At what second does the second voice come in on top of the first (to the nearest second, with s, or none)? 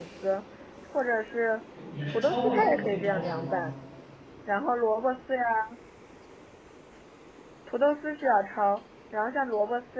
2 s